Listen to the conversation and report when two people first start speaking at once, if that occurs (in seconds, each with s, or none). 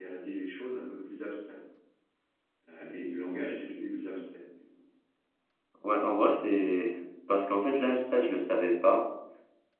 none